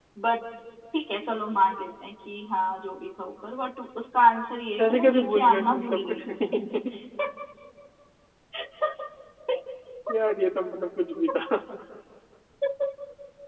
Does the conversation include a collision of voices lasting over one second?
Yes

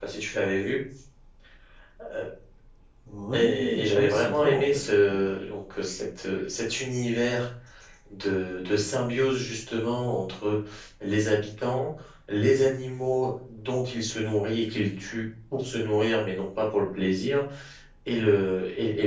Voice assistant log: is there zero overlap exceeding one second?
No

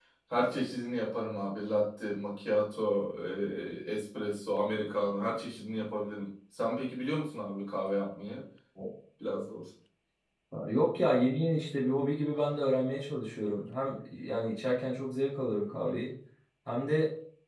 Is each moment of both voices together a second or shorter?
Yes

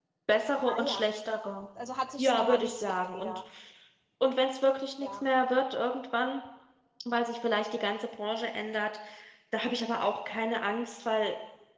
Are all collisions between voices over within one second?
No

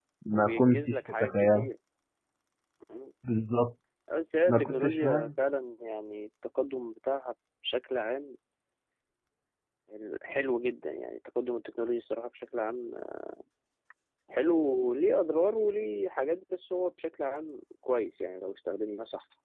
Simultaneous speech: Yes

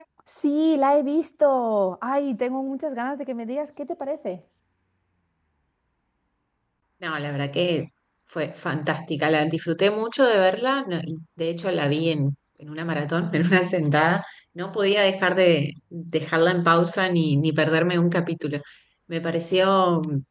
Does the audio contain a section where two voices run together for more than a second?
No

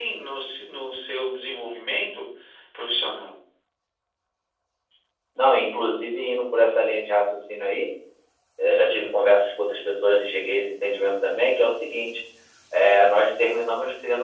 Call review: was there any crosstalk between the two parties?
No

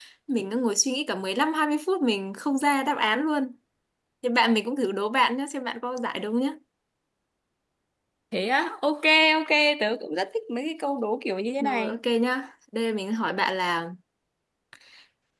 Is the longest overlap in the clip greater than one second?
No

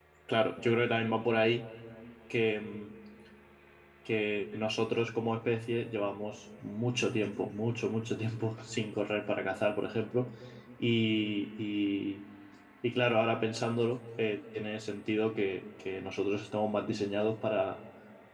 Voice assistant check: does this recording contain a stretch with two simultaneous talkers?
No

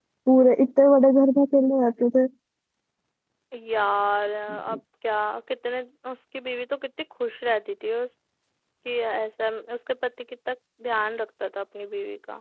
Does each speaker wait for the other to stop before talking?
Yes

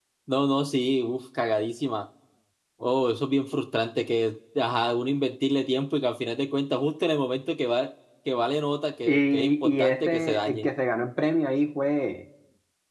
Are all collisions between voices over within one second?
No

